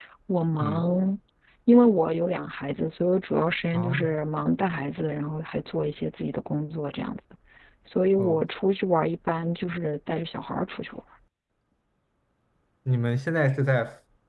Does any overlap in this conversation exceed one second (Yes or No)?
No